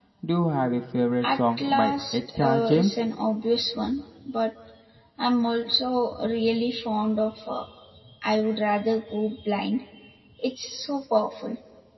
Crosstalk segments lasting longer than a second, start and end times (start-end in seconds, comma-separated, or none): 1.2-2.9